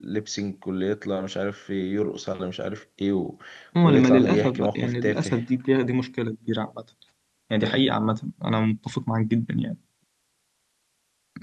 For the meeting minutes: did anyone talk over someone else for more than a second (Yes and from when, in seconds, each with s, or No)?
Yes, from 3.8 s